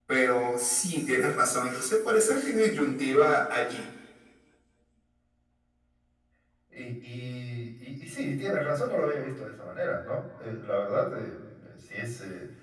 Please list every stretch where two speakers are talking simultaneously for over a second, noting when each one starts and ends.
none

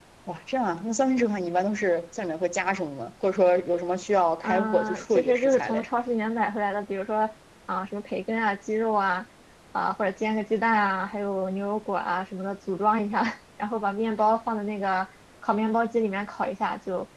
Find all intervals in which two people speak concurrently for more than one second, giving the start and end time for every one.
4.4-5.9

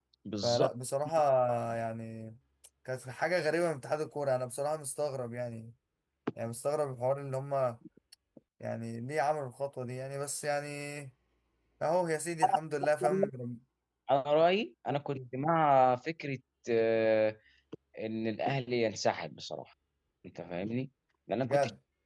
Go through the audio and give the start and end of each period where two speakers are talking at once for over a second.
none

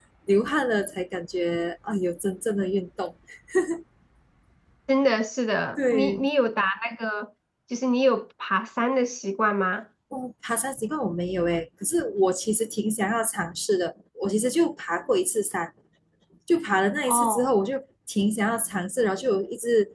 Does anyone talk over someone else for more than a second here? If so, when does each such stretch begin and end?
none

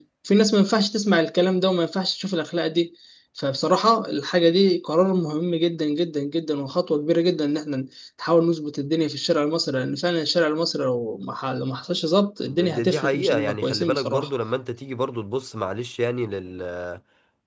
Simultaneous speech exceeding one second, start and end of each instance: 12.5-14.3

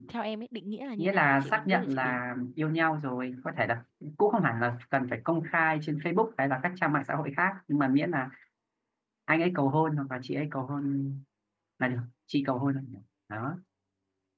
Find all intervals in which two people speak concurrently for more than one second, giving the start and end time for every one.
1.0-2.2

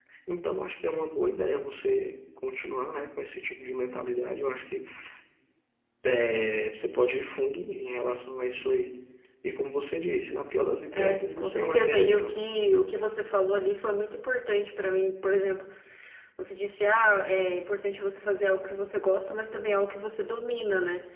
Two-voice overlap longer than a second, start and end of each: 10.9-12.4

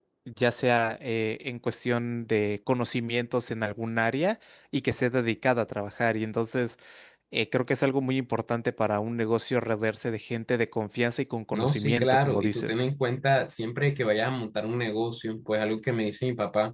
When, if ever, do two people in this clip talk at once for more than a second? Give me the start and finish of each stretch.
11.5-12.8

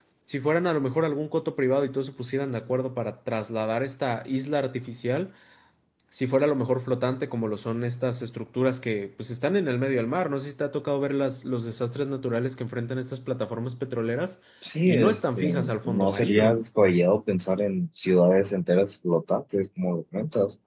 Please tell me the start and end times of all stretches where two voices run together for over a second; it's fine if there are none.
14.9-16.6

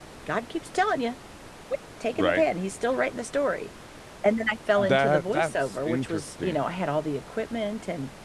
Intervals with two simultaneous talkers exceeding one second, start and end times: 4.8-6.6

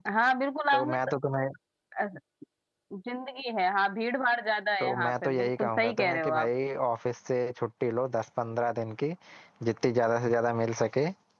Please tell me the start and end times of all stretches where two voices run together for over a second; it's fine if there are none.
4.8-6.5

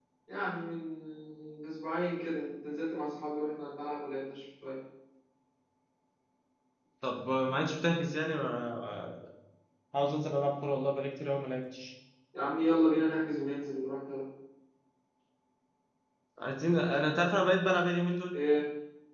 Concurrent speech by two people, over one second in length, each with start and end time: none

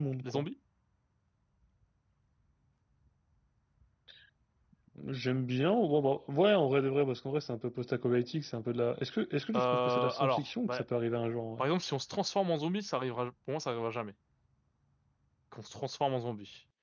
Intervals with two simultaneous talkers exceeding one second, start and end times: 9.6-10.8

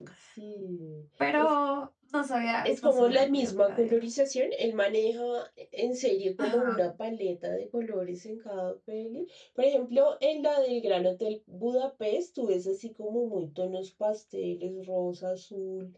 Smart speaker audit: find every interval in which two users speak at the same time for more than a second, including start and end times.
2.6-4.0

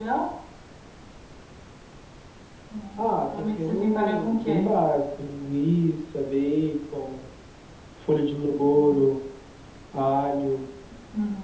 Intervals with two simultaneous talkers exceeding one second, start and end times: 3.0-4.7

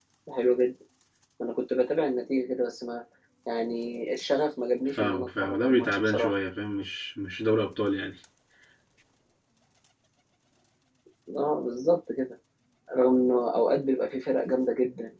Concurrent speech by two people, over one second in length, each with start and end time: 5.0-6.3

